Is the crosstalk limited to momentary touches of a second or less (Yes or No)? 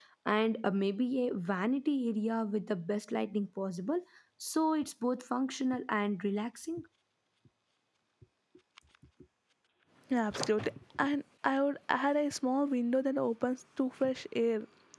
Yes